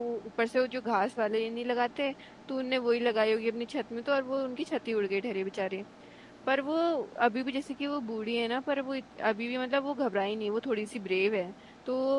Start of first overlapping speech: none

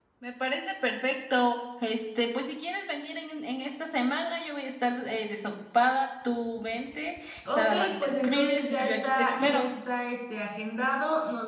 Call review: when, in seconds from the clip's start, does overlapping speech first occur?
8 s

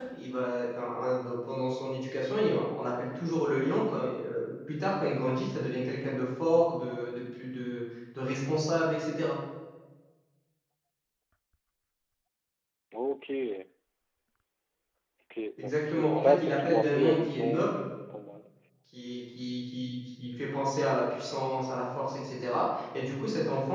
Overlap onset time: 16 s

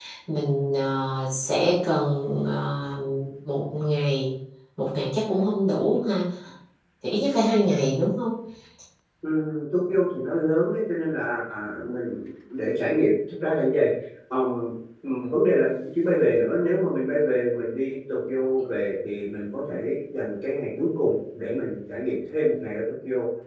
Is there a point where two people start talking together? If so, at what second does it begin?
none

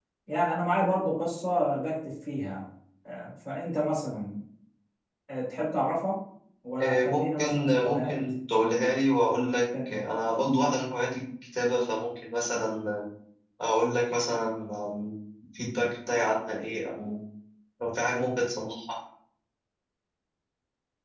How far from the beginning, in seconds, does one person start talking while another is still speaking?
7 s

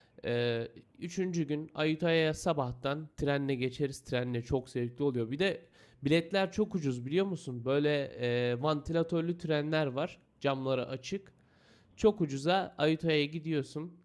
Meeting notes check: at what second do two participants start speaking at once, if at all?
none

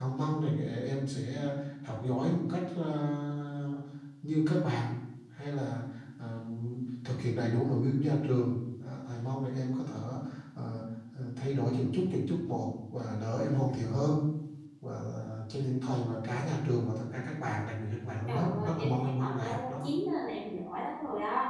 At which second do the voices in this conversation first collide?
18 s

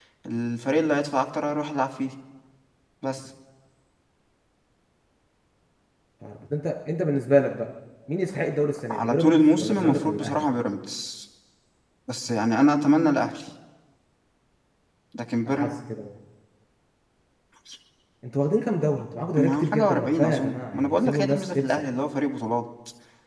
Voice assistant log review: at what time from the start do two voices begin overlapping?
9 s

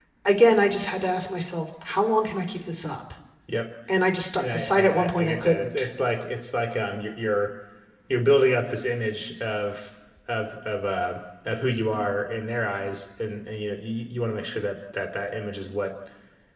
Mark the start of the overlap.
4 s

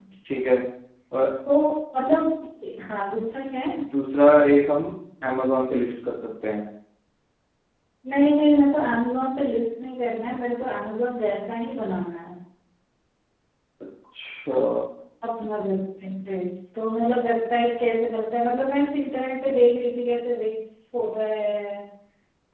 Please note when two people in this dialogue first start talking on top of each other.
none

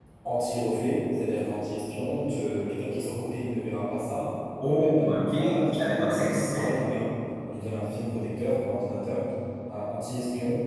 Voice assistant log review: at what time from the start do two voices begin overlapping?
5 s

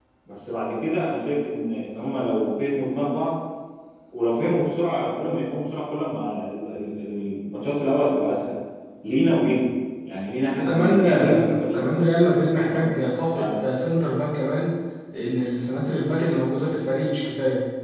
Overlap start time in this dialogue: 11 s

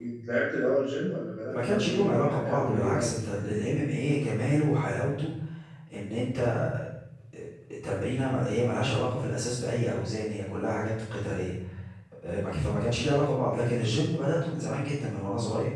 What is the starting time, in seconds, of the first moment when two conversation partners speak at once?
2 s

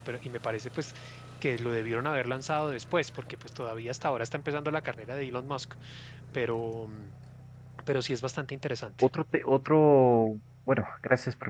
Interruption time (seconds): none

